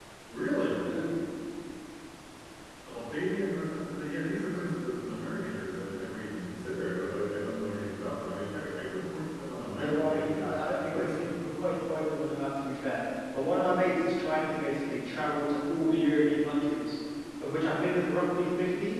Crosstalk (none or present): present